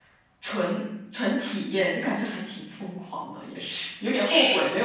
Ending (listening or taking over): listening